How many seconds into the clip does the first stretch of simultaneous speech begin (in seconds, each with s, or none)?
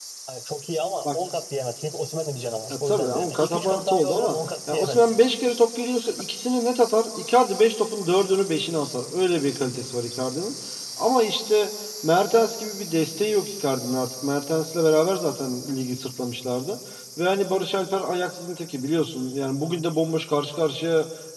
2.7 s